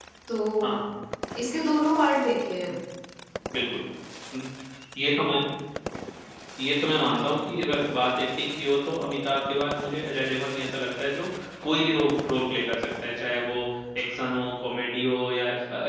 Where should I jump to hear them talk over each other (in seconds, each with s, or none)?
none